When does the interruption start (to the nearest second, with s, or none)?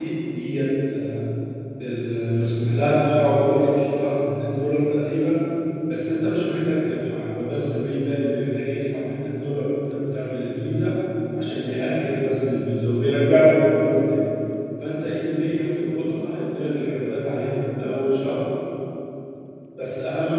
none